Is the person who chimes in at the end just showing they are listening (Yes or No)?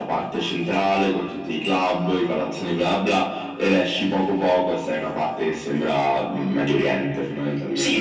No